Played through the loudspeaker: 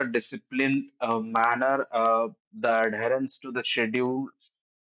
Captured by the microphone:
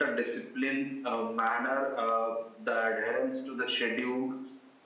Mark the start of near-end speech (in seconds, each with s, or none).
none